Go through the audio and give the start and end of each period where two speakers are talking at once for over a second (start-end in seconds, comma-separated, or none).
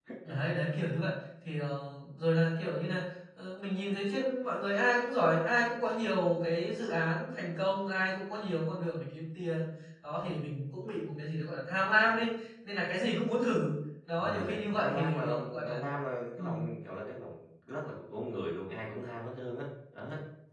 14.2-15.8